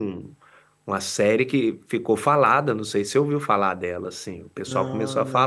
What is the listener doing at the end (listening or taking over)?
listening